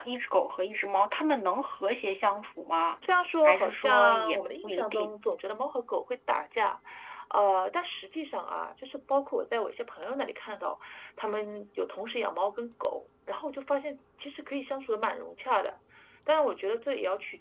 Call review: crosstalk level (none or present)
present